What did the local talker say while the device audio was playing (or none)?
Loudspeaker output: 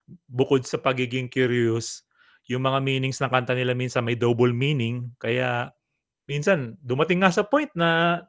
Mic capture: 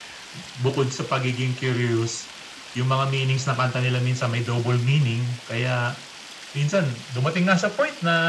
none